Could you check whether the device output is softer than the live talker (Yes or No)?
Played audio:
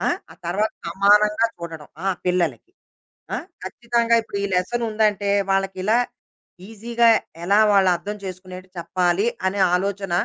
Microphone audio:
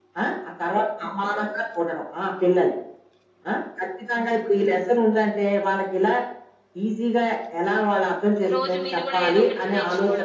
No